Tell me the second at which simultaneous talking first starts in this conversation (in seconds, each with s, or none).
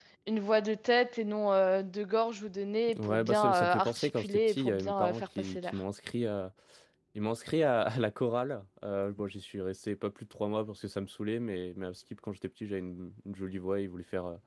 2.9 s